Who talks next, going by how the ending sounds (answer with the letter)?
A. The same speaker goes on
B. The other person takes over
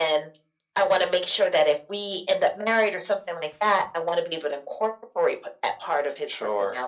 B